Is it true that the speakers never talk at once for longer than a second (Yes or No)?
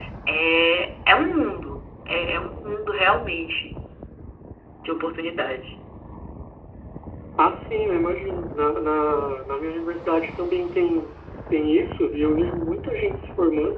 Yes